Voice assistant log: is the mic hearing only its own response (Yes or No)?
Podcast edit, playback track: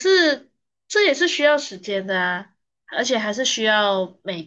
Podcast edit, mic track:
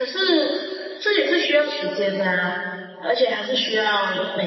Yes